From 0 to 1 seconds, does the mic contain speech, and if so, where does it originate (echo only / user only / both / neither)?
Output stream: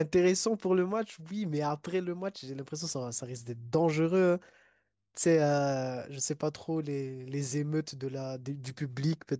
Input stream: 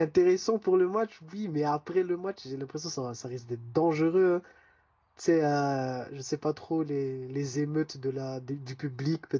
echo only